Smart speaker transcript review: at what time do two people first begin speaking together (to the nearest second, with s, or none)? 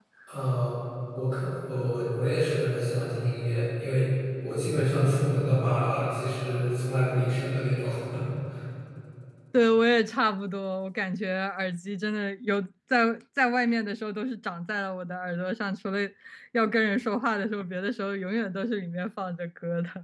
none